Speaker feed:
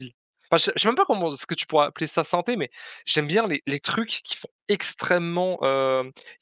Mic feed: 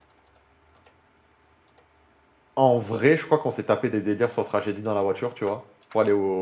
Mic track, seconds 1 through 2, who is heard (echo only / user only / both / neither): neither